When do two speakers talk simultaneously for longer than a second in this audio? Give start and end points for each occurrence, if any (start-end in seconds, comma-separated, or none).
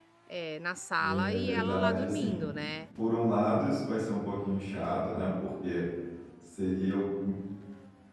1.0-2.4